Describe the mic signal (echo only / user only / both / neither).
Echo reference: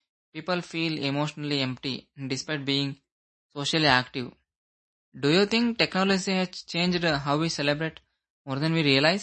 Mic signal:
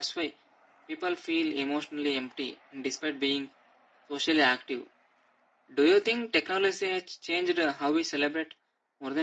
echo only